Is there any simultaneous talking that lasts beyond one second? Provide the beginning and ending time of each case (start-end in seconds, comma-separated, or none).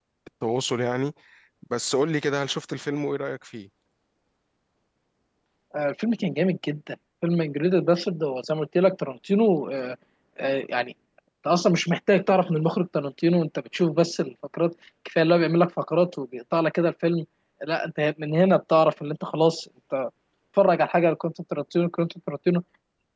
none